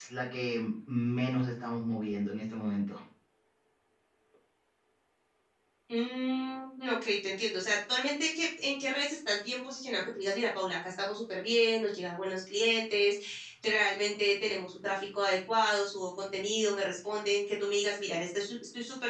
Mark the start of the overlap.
none

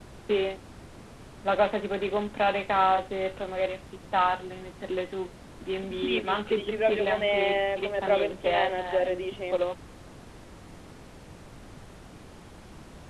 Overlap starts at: 5.8 s

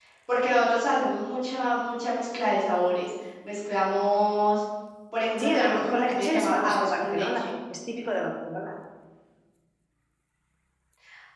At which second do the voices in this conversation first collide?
5.4 s

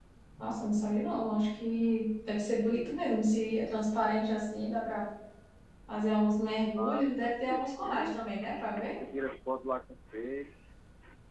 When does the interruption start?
6.8 s

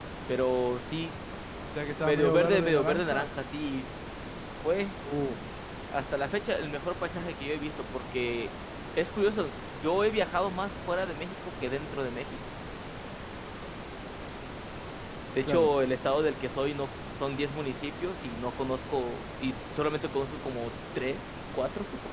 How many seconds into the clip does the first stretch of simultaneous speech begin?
2.1 s

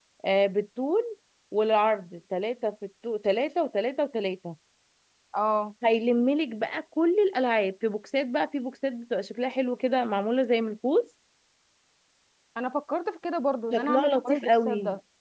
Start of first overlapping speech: 13.7 s

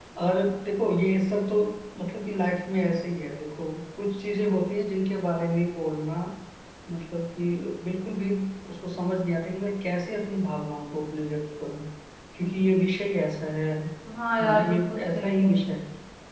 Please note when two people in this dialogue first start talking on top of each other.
14.4 s

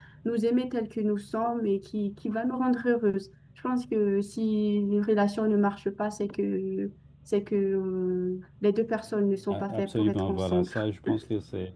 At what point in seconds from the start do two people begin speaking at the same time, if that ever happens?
9.5 s

